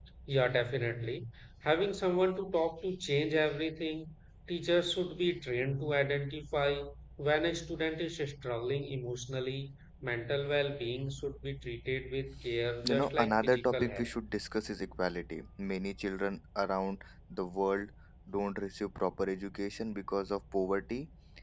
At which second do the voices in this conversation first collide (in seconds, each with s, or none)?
12.8 s